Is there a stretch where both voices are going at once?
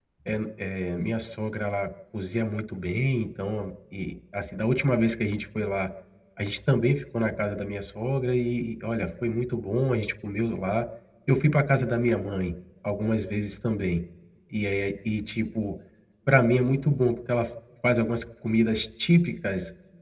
No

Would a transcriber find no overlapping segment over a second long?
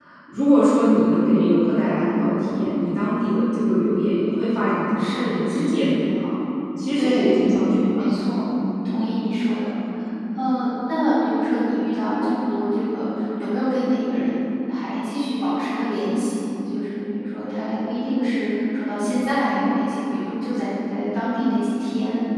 No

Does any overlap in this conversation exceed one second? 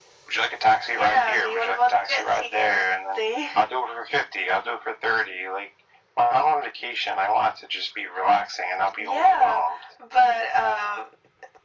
Yes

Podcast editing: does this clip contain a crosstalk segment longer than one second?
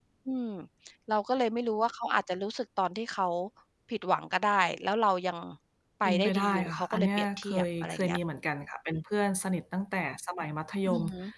Yes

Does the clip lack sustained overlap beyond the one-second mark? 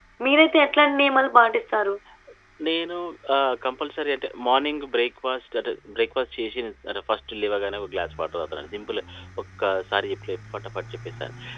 Yes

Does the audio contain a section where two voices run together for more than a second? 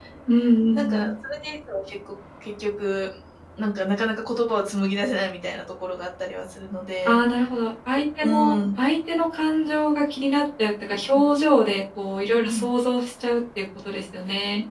No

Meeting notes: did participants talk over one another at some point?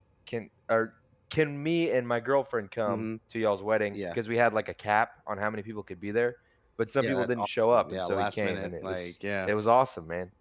Yes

